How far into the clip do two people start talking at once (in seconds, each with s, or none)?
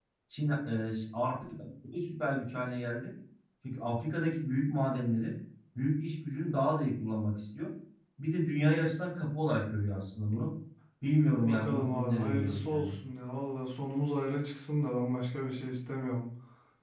11.4 s